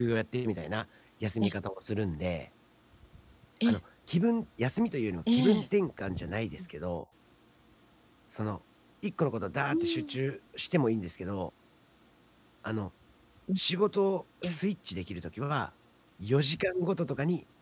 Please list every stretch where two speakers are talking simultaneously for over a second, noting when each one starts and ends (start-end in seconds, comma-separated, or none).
none